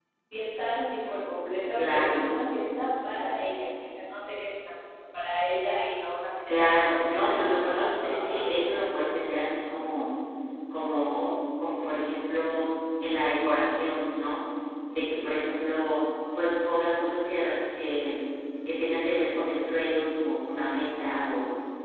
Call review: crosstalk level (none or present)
present